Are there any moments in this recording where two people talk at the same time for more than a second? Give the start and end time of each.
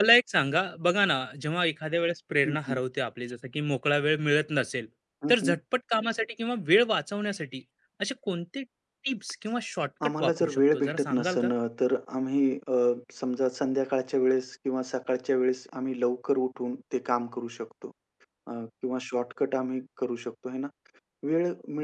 10.1-11.5

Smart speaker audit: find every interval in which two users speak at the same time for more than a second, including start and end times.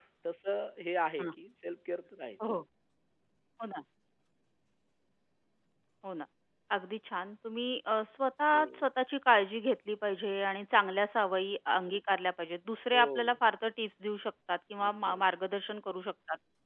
none

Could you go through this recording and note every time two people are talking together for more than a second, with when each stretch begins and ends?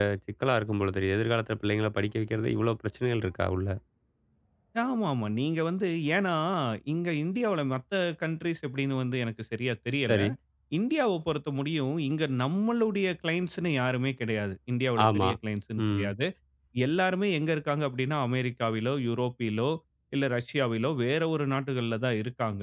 none

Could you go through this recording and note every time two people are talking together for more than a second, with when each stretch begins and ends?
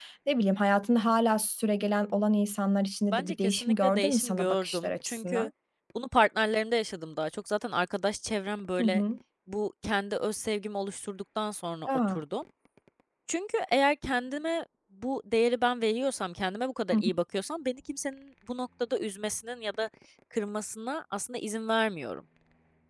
3.1-5.5

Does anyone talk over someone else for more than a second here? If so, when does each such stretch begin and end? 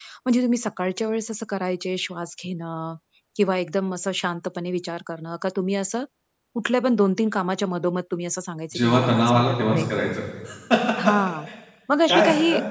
8.8-10.1

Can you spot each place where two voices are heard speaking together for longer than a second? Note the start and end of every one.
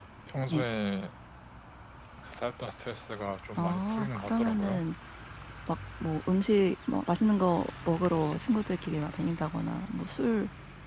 3.6-4.8

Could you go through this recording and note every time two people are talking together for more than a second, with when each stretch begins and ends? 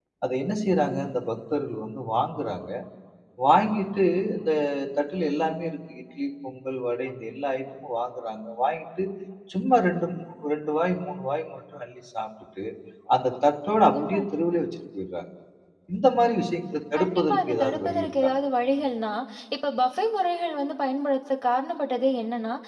17.0-18.3

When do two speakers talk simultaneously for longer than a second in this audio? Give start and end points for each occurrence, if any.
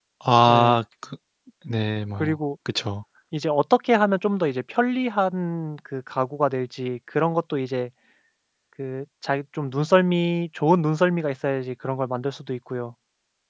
none

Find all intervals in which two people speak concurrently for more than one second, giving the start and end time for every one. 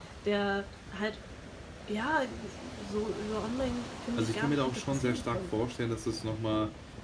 4.2-5.6

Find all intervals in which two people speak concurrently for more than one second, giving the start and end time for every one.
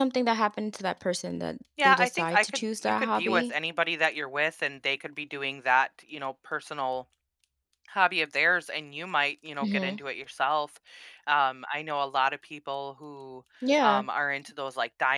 1.8-3.5

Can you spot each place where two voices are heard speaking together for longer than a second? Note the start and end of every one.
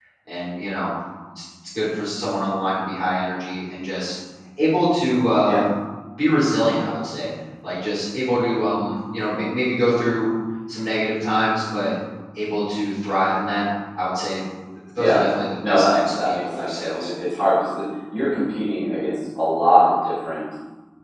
15.7-17.1

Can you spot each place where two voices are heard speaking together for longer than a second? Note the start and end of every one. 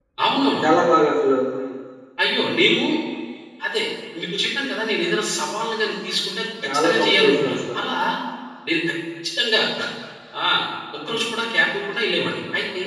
6.6-7.9

